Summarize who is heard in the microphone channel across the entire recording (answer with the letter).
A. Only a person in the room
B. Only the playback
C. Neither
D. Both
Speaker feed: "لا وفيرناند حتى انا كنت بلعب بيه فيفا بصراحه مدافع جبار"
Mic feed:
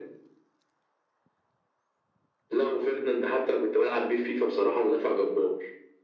B